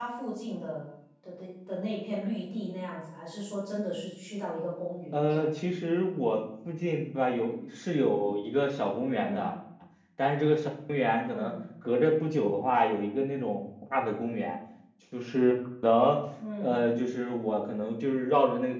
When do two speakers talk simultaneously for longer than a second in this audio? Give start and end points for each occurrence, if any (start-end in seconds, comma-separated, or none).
none